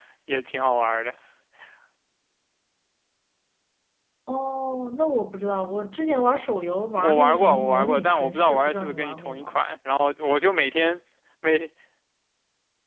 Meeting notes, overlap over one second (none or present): present